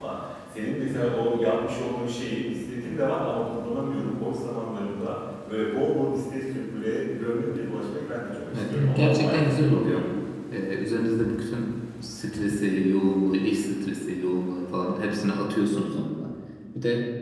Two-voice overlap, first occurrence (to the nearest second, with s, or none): 9 s